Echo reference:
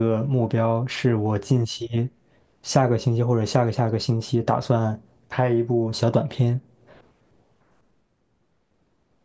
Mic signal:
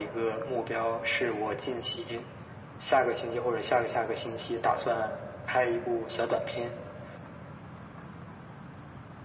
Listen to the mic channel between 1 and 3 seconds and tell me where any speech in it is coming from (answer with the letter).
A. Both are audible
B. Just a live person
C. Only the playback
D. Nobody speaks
C